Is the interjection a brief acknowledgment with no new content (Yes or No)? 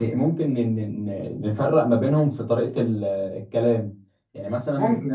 Yes